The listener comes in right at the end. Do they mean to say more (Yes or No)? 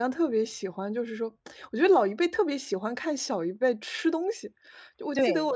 No